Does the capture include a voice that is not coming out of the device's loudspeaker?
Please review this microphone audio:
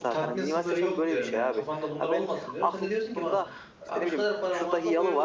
Yes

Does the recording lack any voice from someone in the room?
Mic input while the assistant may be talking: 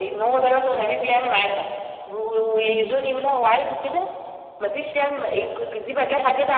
No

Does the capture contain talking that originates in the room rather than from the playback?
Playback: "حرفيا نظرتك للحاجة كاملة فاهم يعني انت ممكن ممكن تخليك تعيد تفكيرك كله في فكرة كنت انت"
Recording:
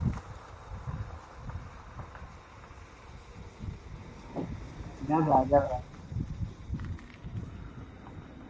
Yes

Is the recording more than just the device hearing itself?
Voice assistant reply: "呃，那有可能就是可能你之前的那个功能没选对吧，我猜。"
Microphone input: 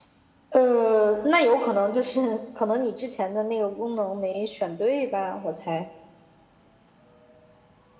No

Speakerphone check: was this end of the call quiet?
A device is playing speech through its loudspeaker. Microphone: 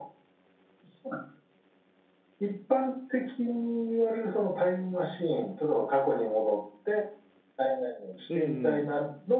No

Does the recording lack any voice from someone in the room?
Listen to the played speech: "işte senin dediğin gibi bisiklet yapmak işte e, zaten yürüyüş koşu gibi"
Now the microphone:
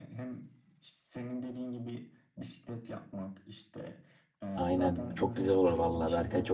No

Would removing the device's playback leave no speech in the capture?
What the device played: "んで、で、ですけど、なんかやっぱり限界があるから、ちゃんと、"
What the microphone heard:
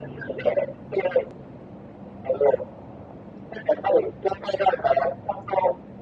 Yes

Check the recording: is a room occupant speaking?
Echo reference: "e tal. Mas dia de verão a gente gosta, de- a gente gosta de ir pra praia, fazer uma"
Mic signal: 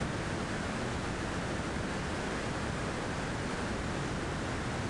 No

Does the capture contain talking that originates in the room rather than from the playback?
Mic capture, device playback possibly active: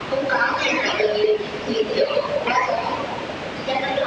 No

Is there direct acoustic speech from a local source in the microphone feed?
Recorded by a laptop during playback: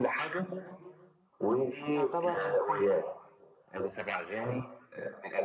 Yes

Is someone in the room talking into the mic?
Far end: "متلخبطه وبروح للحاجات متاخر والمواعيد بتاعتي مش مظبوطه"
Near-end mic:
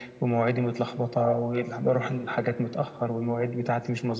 No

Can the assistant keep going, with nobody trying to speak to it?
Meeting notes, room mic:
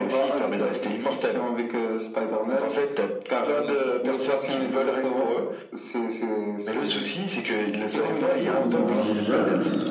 No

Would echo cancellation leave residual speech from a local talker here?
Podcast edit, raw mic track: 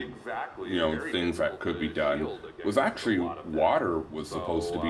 Yes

